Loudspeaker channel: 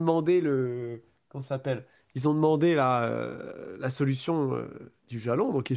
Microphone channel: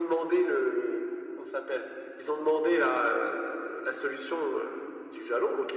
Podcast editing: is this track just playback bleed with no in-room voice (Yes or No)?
Yes